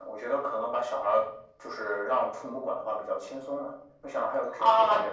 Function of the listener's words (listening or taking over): taking over